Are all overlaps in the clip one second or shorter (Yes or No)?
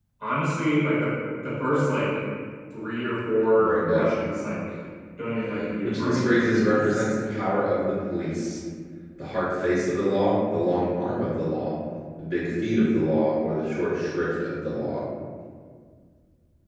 No